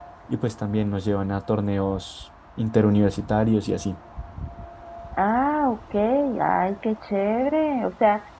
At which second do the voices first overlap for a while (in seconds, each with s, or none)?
none